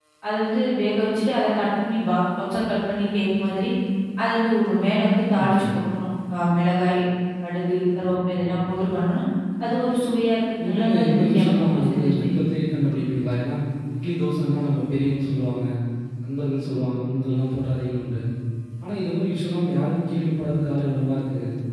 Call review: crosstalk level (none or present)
present